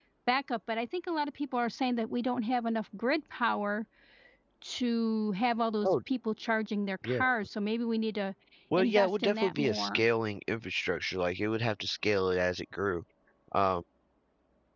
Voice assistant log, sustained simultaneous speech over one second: present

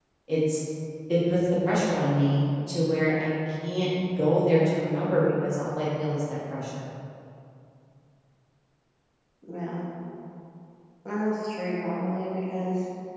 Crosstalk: none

